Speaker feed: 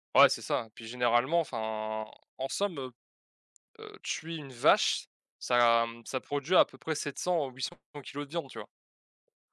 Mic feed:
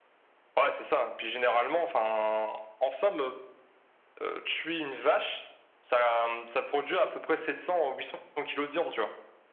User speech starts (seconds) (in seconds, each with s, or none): none